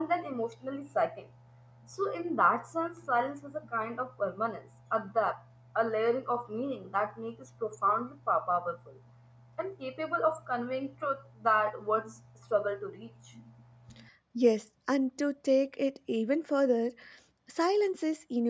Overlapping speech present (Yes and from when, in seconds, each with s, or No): No